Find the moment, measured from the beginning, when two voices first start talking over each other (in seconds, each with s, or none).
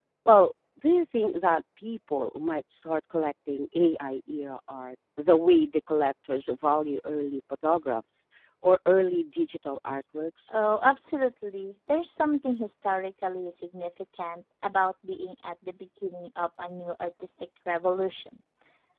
none